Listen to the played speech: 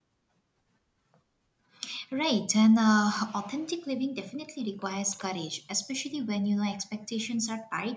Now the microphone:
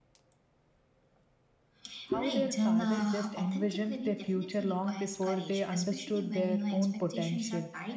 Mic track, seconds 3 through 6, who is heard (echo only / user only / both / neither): both